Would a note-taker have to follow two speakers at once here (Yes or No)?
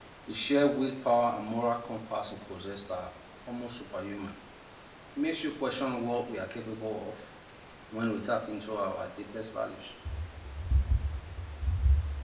No